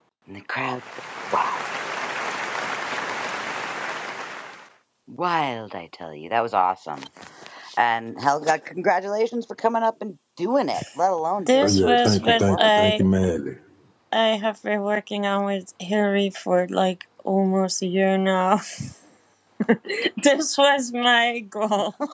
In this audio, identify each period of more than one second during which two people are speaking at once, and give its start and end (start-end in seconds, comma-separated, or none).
11.5-13.0